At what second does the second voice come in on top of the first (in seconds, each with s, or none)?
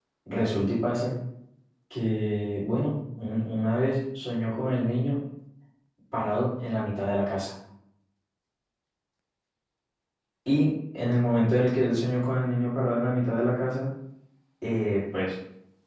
none